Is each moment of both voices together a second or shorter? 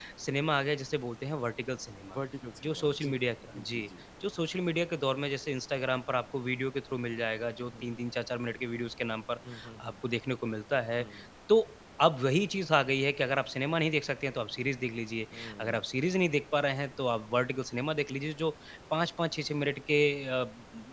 Yes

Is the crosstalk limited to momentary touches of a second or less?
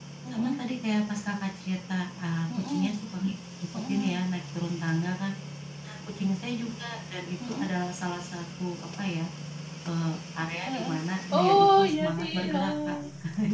No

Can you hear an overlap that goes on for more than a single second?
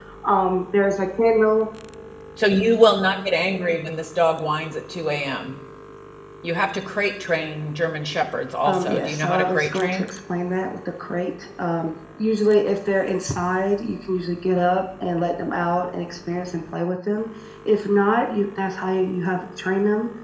Yes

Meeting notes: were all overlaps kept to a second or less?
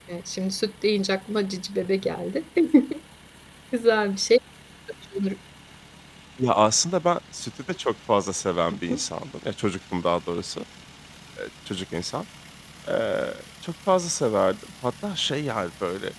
Yes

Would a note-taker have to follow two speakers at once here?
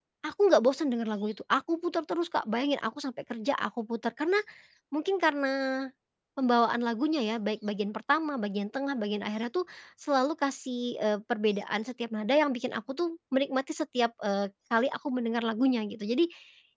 No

